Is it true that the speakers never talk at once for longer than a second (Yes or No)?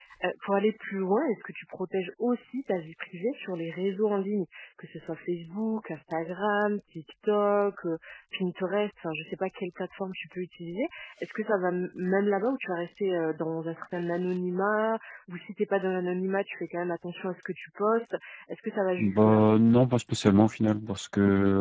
Yes